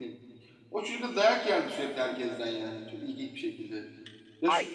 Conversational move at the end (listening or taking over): taking over